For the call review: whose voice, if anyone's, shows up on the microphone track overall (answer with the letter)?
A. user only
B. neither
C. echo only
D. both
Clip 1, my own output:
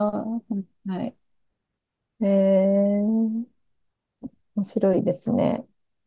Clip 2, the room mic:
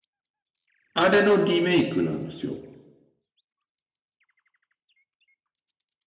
A